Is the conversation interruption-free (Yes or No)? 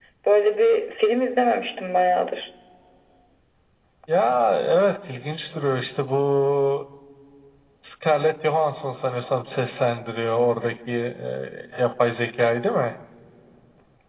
Yes